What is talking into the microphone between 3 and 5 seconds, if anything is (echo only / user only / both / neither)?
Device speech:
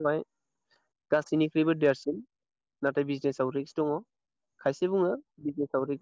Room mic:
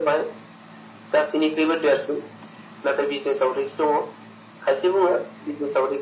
echo only